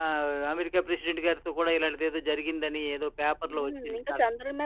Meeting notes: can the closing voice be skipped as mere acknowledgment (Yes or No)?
No